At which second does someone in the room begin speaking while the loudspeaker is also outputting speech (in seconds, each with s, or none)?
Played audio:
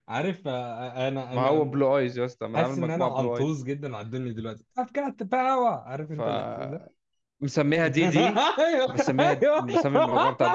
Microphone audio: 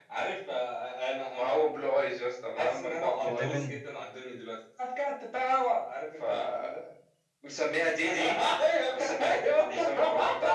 3.3 s